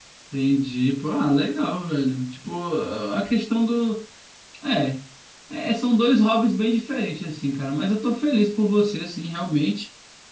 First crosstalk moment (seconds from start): none

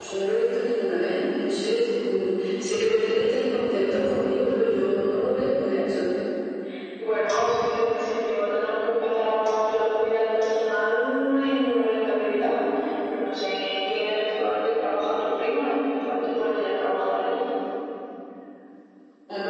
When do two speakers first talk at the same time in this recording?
none

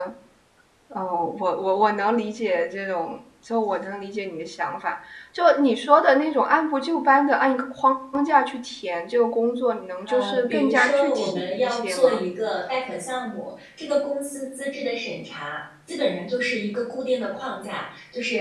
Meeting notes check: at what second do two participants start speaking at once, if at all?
10 s

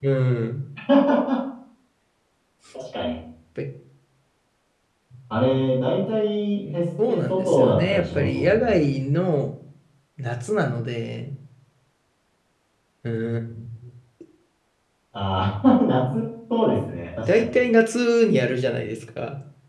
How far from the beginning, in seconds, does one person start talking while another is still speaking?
7 s

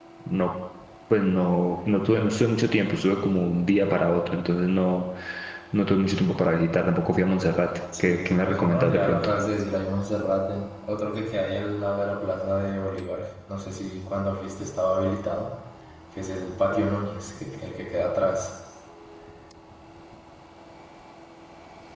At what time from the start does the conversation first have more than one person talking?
8 s

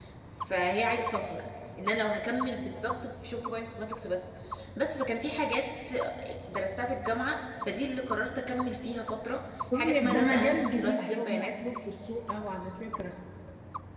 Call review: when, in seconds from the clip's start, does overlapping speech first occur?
10 s

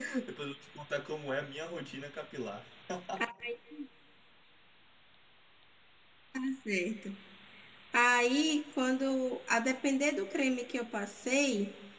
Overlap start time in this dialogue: none

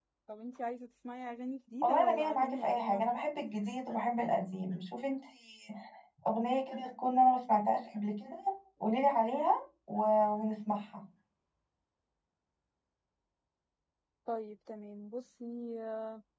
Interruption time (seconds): 2 s

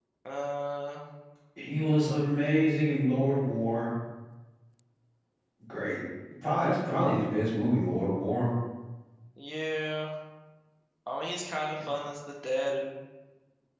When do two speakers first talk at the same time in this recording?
none

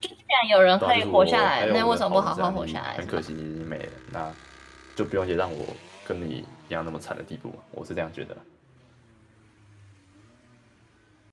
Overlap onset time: 1 s

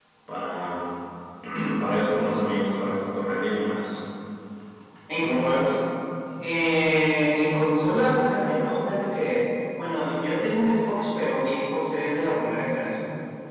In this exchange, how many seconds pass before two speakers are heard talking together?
none

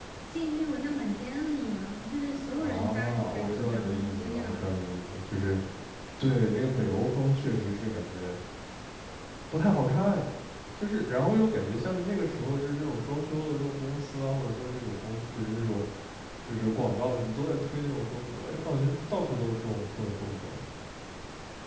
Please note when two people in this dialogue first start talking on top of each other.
3 s

